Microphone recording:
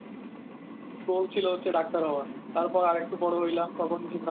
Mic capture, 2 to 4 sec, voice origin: user only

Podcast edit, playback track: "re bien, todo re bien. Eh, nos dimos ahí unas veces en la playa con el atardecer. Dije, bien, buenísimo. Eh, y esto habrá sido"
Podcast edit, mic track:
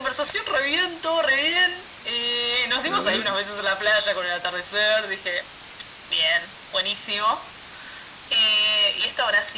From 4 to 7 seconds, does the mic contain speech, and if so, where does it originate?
echo only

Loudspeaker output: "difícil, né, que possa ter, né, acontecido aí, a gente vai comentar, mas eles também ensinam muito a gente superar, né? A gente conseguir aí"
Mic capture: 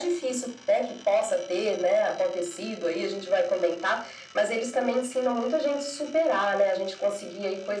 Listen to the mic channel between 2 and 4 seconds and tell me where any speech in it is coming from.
echo only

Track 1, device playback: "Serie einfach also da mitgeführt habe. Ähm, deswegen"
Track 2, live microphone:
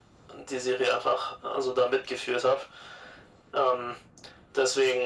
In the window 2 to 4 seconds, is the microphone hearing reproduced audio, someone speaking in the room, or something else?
echo only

